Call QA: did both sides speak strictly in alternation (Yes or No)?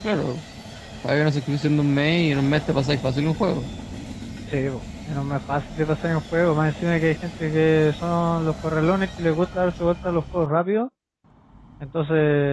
Yes